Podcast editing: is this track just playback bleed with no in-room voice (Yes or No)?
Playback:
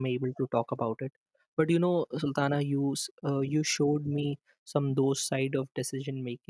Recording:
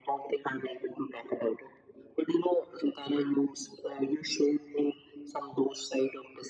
Yes